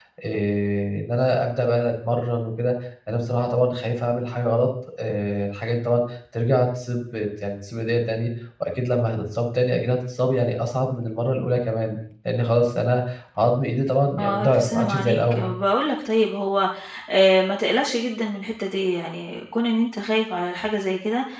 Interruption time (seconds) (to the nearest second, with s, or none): 14 s